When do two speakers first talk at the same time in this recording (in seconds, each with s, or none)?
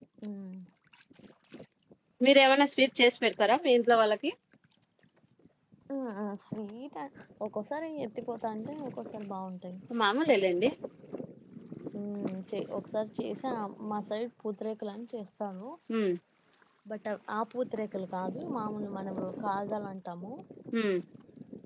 none